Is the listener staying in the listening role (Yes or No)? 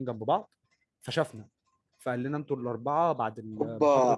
No